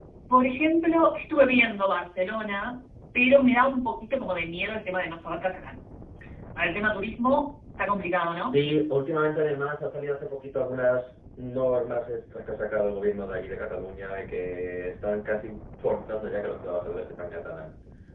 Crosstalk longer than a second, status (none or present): none